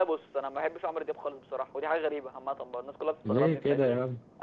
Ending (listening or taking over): taking over